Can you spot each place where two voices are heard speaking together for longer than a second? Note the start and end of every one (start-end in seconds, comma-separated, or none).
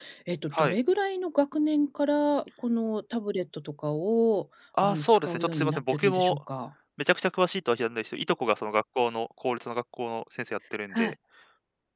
4.8-6.4